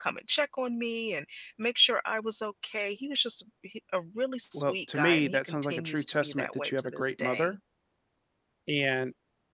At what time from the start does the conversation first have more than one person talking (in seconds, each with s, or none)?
4.5 s